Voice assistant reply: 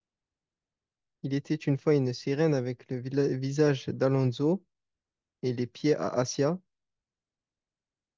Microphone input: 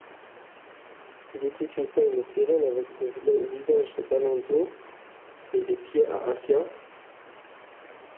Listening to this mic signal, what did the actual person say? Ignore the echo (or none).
none